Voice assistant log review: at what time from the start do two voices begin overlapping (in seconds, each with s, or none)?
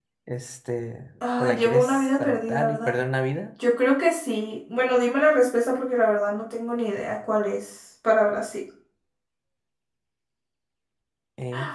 1.2 s